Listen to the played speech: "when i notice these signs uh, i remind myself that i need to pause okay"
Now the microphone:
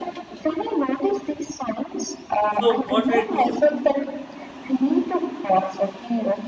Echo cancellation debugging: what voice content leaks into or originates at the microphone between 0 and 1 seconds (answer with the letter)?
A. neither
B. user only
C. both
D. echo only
D